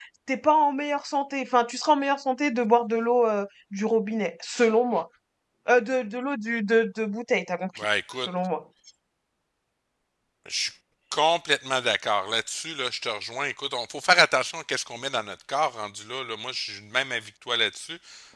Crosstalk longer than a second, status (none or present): none